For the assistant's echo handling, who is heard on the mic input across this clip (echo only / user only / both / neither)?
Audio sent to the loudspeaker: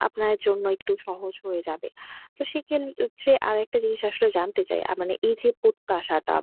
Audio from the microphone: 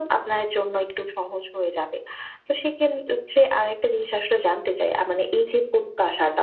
echo only